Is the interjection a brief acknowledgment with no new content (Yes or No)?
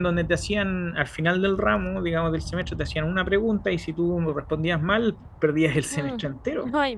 No